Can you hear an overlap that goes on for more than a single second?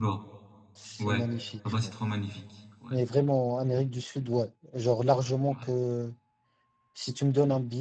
No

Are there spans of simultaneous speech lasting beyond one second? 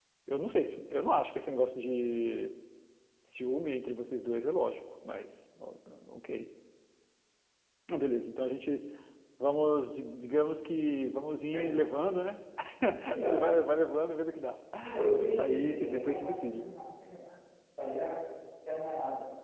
Yes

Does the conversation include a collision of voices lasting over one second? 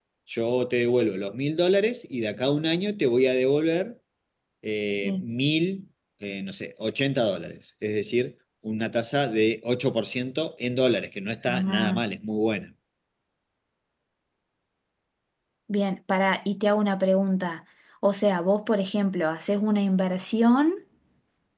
No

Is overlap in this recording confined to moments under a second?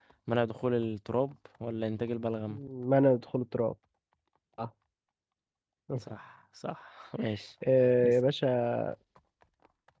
Yes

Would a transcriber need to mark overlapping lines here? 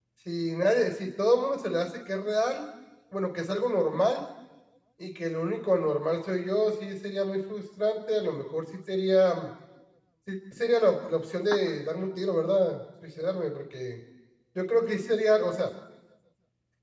No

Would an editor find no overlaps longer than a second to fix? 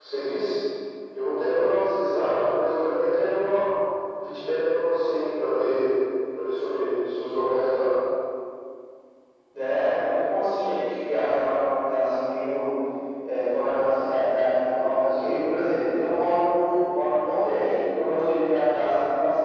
Yes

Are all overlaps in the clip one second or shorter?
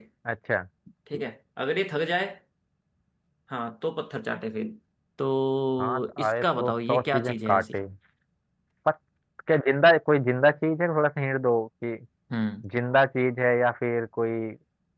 No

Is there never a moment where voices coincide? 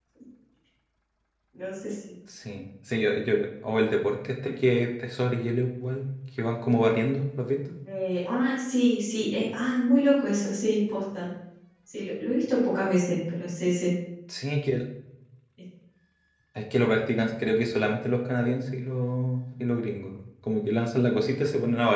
Yes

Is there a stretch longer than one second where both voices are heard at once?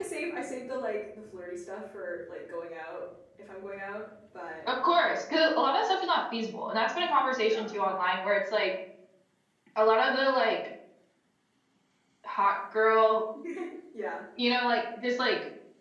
No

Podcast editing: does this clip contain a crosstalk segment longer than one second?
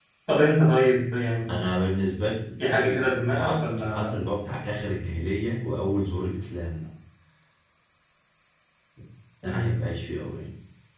Yes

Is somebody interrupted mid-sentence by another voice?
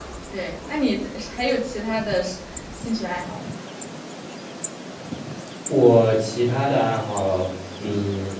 No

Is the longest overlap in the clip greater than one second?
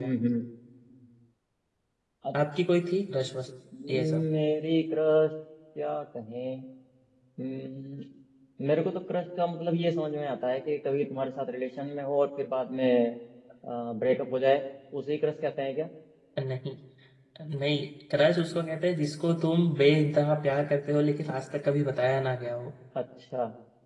No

